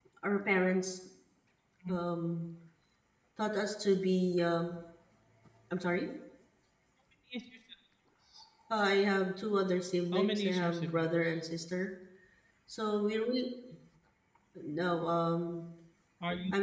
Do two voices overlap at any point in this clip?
Yes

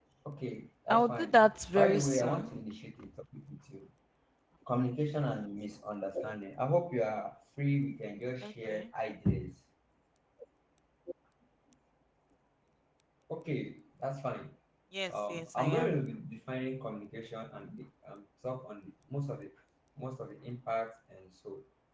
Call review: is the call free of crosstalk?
No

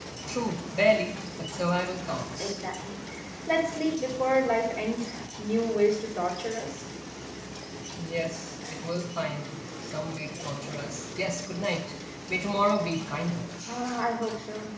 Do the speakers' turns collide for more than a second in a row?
No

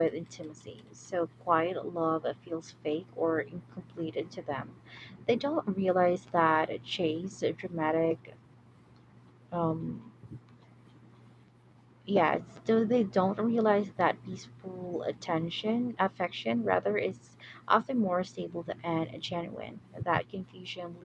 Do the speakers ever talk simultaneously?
No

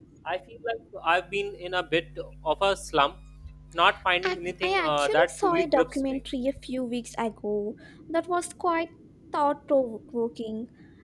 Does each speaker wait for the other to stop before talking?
No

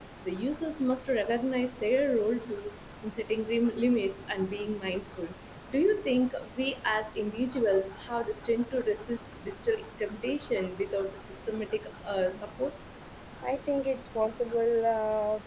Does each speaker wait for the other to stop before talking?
Yes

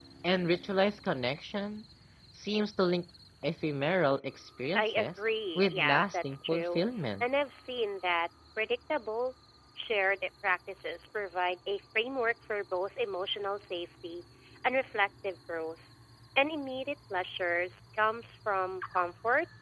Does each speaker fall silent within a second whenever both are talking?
No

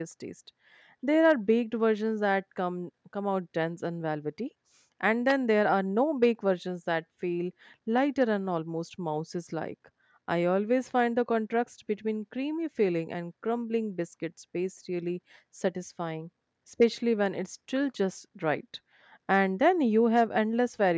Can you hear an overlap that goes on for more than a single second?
No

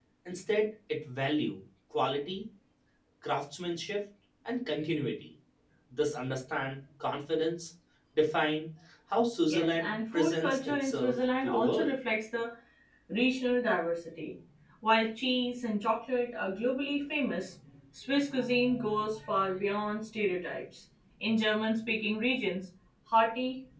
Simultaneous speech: Yes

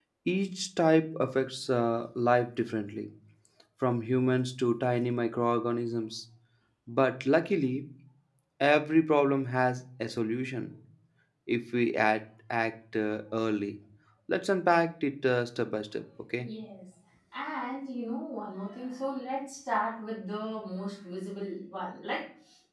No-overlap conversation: Yes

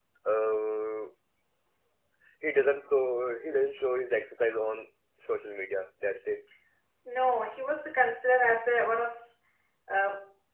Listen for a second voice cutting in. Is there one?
No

